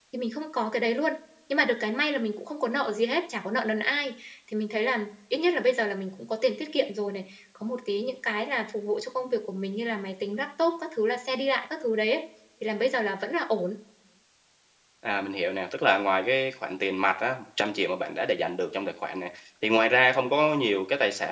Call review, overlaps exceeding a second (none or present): none